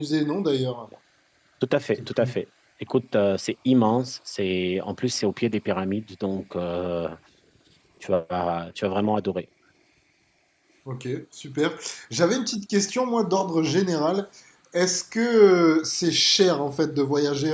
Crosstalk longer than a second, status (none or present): none